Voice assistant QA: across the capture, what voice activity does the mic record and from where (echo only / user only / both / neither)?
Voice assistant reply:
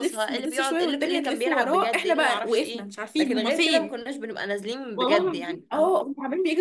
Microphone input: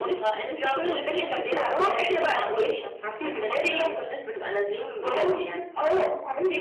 echo only